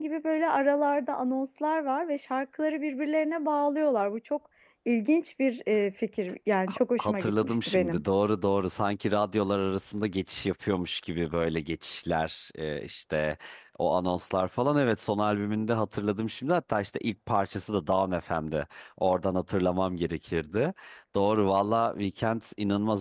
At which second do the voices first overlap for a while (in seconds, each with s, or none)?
6.7 s